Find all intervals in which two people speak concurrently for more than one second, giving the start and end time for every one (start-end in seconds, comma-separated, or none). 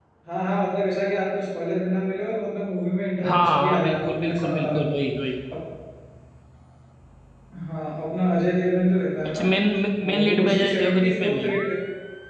3.2-5.0, 10.1-11.5